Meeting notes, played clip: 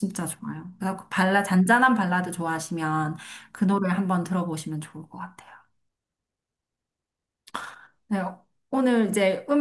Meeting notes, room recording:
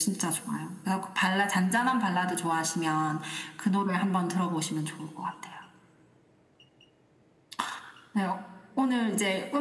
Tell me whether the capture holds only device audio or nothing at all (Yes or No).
Yes